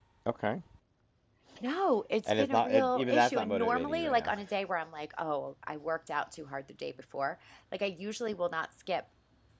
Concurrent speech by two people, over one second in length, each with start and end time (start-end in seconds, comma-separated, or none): 2.3-4.3